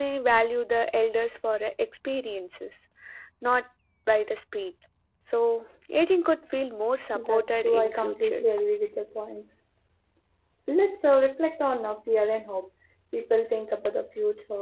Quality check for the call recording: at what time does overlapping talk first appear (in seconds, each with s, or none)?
7.1 s